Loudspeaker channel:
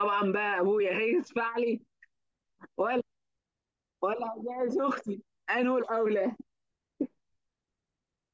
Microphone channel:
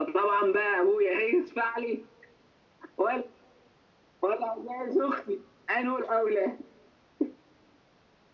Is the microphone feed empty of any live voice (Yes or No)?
Yes